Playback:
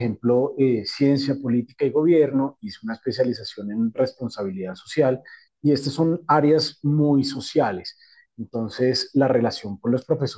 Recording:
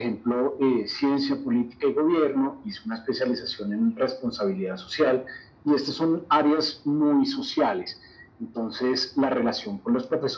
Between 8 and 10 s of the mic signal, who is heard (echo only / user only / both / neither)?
echo only